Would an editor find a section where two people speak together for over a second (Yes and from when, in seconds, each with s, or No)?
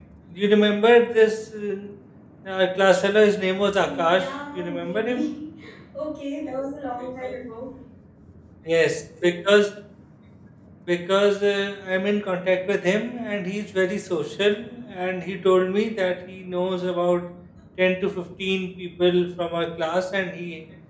Yes, from 3.7 s